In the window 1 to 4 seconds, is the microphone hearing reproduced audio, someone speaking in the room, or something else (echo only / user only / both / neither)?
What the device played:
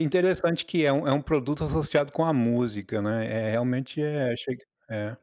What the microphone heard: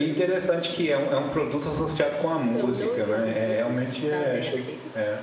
both